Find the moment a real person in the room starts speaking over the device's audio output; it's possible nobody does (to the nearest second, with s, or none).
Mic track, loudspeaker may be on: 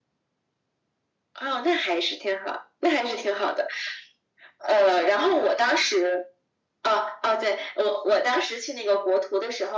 none